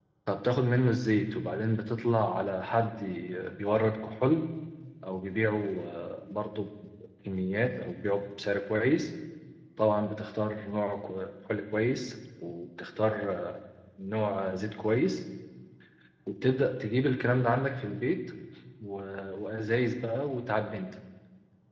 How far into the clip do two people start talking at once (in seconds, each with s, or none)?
none